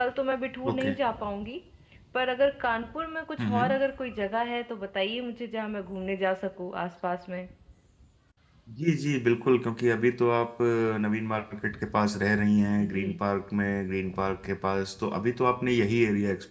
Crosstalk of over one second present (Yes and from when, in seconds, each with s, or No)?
No